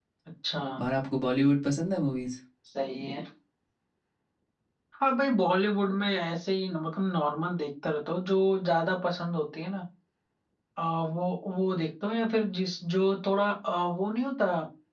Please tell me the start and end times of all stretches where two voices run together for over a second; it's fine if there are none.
none

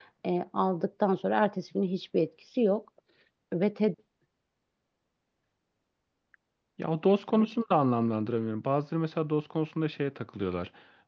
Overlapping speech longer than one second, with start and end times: none

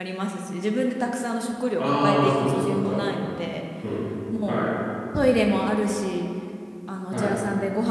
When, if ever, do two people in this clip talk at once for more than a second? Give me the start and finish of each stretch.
1.8-3.0

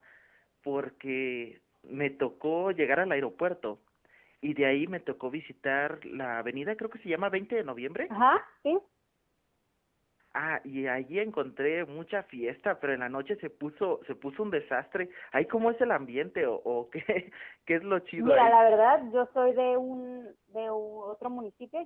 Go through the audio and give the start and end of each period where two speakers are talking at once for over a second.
none

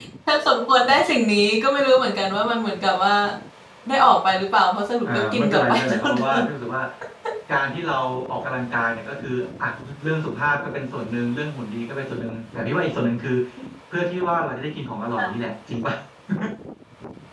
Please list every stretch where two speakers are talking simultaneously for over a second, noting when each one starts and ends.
5.0-6.4

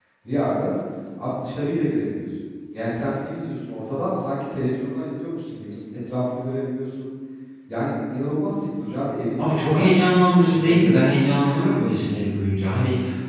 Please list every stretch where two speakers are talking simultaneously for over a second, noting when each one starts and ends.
none

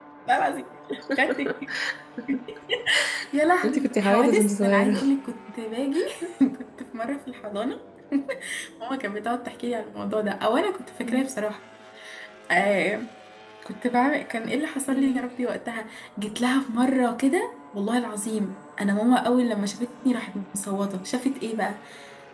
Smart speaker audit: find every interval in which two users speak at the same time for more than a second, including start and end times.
3.6-4.9

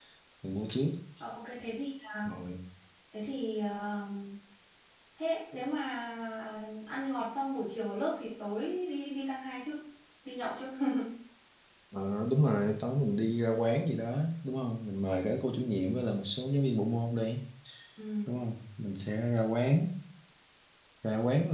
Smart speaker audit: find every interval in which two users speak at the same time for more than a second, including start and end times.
none

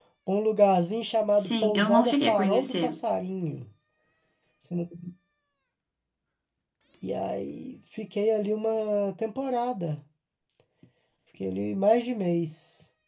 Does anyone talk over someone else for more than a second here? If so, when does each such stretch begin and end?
1.4-3.0

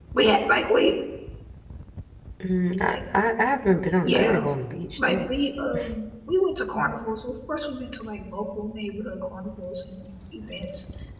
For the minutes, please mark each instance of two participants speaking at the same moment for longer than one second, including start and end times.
none

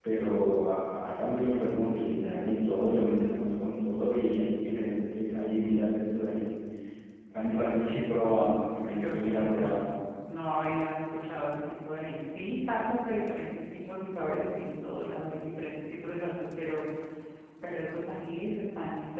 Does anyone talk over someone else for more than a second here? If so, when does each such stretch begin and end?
8.2-9.8

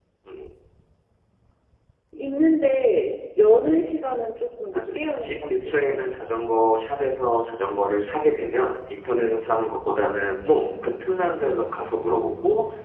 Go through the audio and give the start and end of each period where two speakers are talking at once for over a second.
4.7-6.1

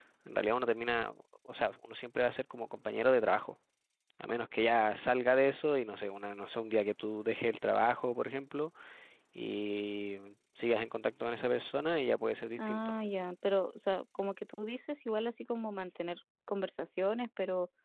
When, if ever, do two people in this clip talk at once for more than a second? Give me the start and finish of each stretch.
none

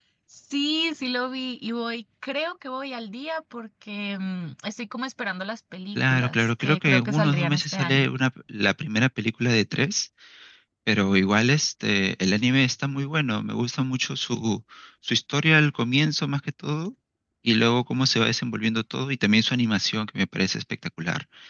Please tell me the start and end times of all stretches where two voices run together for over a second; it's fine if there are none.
6.0-8.1

